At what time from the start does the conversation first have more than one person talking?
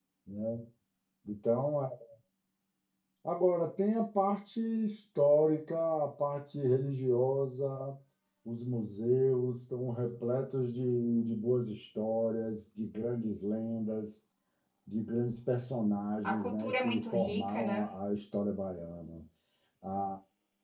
16.2 s

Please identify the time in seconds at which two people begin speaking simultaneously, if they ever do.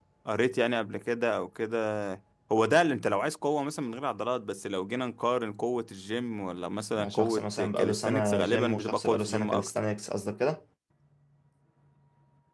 7.0 s

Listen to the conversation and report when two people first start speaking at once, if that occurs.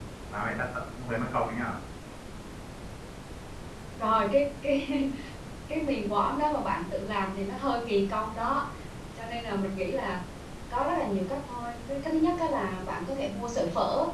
none

